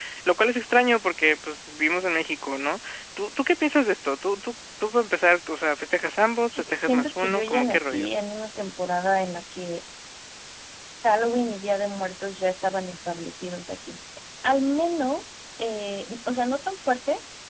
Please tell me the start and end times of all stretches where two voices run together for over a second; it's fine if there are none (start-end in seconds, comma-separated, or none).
6.6-8.1